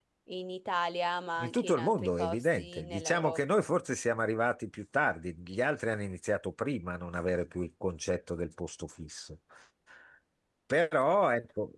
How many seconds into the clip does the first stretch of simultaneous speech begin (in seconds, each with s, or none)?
1.4 s